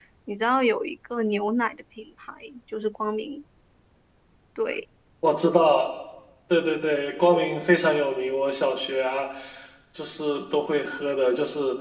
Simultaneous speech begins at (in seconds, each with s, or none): none